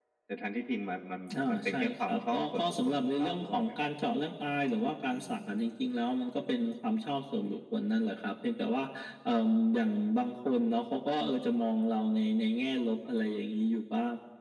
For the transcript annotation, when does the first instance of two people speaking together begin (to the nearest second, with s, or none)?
1 s